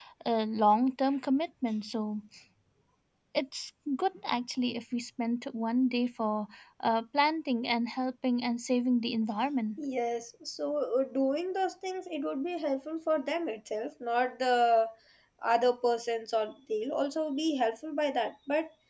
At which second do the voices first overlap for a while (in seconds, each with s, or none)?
none